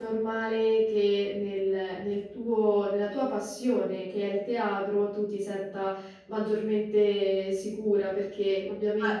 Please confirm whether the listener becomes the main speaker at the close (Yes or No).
No